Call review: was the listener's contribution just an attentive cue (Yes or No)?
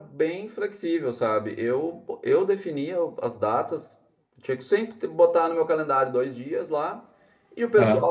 Yes